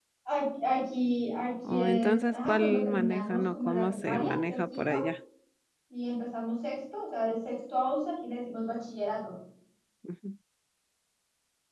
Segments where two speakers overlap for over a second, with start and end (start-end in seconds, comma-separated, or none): 1.7-5.0